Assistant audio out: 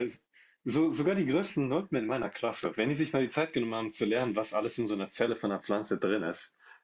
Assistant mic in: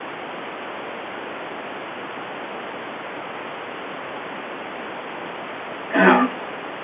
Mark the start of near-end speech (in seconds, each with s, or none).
5.9 s